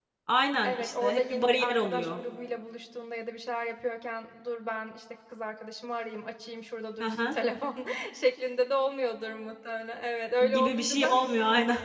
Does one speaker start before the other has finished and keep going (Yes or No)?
Yes